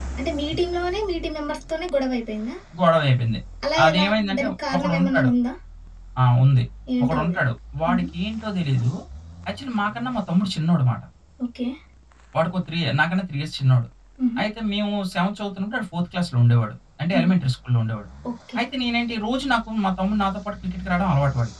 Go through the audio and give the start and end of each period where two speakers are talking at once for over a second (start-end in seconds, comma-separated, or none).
3.8-5.3